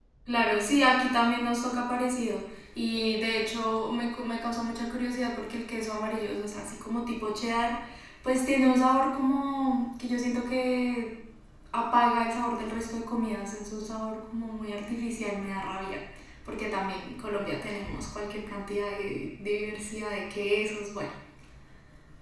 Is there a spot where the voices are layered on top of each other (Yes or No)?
No